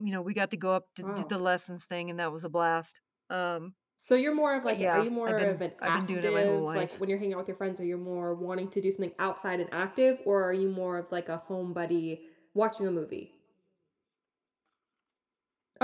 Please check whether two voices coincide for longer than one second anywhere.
Yes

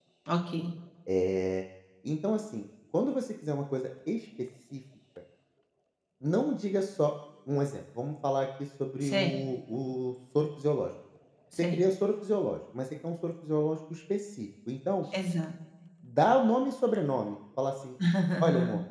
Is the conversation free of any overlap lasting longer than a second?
Yes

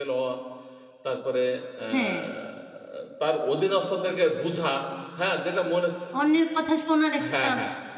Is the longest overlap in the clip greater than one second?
No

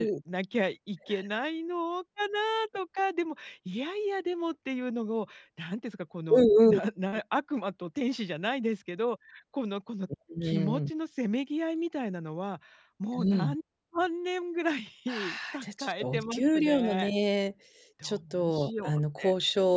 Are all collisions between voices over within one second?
No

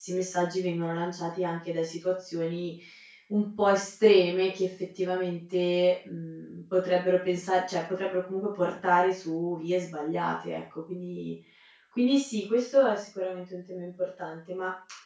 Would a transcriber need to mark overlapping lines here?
No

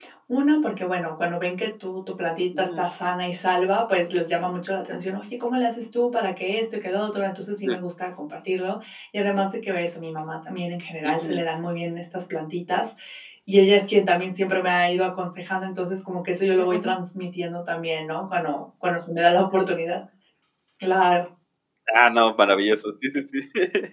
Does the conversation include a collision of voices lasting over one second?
No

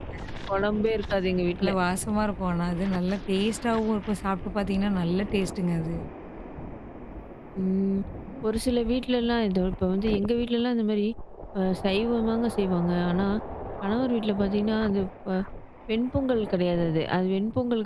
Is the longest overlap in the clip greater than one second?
No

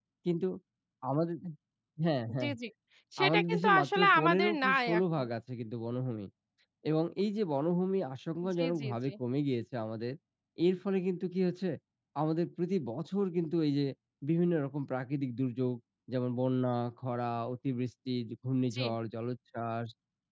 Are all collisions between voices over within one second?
No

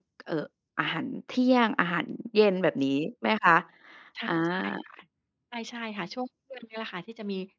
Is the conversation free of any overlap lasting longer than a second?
Yes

